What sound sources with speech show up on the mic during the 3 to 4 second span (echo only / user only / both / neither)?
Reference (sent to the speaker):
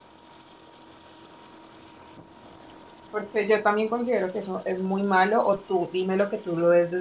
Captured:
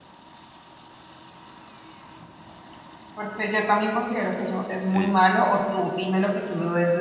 echo only